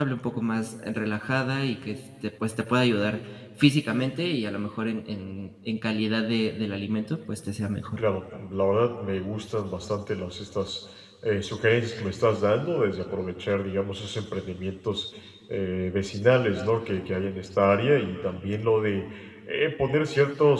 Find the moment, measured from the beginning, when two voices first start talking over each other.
none

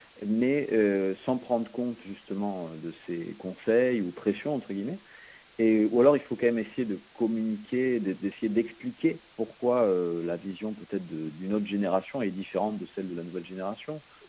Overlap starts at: none

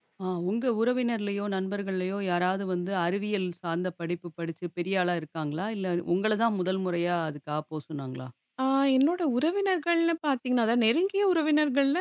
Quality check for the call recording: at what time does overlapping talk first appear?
none

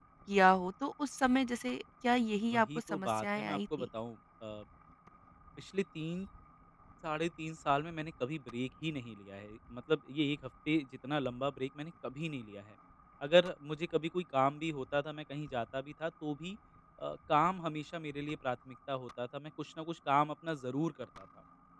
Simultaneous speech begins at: 2.5 s

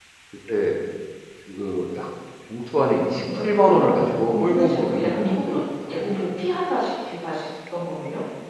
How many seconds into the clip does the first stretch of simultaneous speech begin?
3.2 s

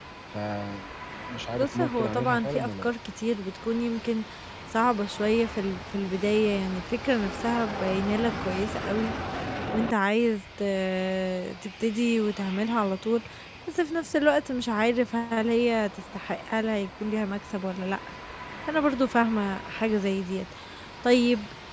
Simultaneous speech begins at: 1.6 s

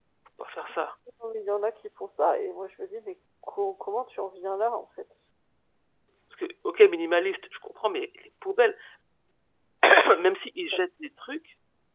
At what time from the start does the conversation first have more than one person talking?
none

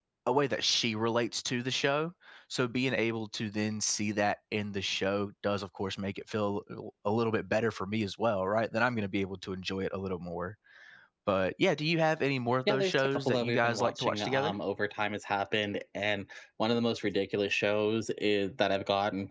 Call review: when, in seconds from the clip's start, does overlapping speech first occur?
12.7 s

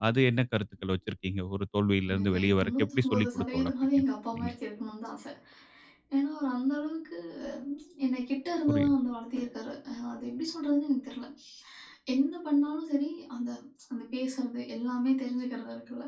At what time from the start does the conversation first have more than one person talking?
2.1 s

